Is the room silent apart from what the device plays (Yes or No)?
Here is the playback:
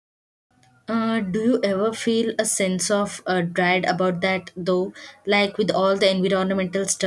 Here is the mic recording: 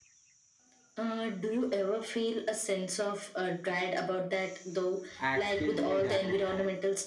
No